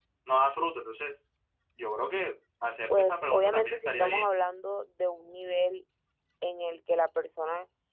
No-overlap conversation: No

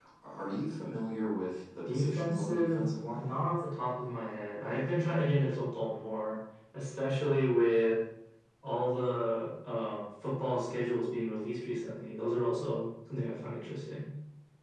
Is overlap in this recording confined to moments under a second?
No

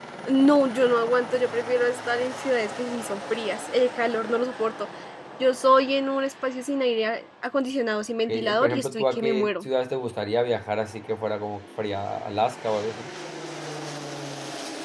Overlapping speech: Yes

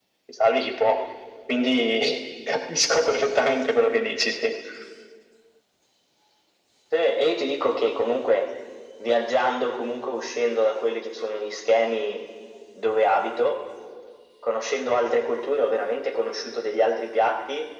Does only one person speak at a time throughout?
Yes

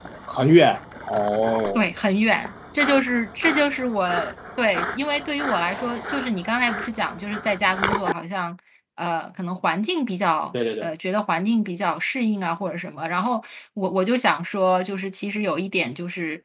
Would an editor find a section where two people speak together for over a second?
No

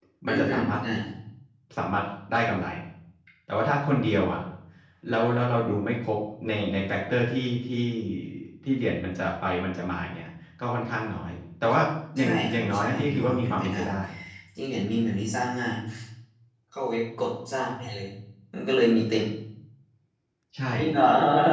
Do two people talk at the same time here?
Yes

